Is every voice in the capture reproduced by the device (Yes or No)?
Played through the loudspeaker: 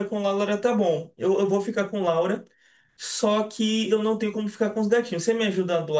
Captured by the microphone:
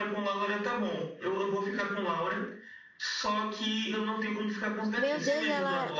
No